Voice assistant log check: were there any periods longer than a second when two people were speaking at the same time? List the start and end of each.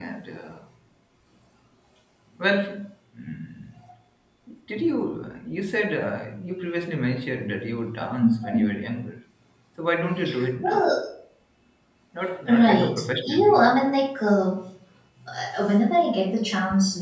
12.6-13.9

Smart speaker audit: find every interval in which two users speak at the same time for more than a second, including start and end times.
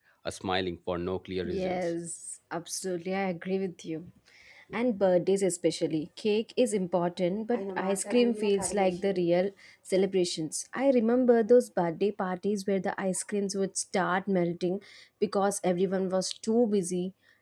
none

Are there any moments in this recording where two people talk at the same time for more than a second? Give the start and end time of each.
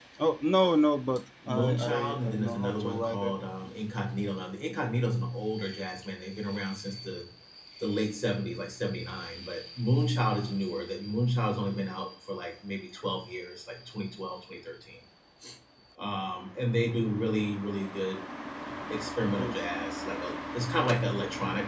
1.5-3.4

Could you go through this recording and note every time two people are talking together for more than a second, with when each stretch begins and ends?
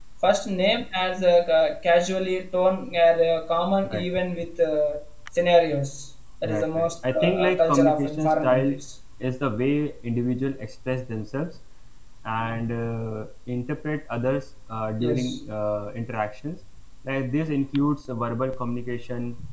6.4-8.8

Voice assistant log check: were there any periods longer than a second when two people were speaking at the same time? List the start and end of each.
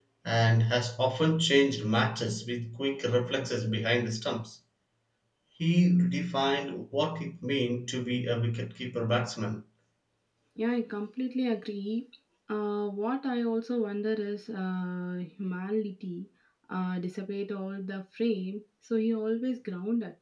none

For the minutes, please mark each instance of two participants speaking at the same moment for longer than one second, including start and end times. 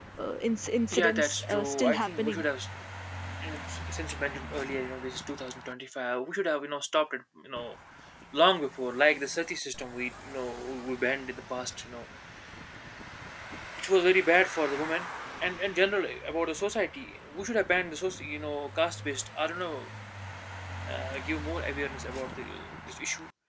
0.9-2.4

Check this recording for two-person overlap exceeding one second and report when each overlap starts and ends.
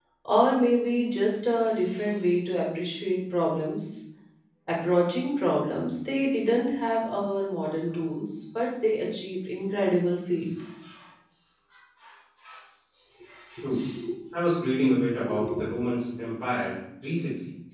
none

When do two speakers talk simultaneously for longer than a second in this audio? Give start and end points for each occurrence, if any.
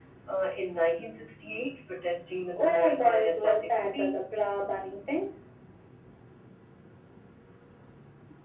2.5-4.1

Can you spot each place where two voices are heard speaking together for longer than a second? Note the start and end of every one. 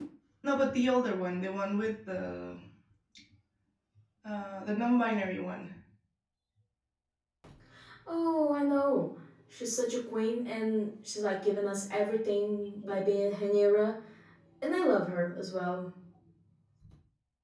none

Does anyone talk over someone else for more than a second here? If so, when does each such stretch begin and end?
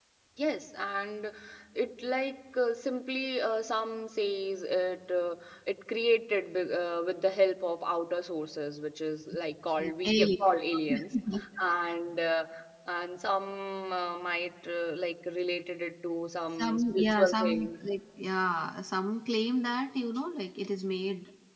16.6-17.8

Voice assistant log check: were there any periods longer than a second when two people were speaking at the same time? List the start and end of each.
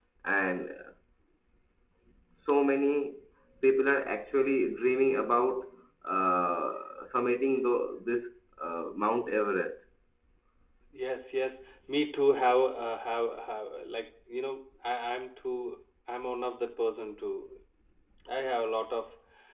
none

